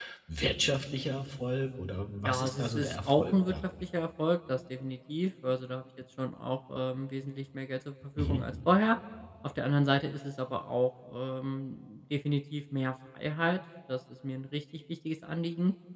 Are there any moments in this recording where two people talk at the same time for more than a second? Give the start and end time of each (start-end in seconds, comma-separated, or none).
2.2-3.5